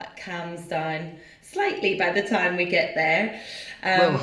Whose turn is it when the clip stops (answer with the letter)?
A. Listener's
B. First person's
A